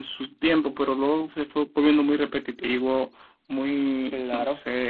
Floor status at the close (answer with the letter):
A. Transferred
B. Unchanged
B